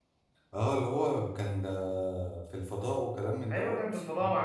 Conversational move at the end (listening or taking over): taking over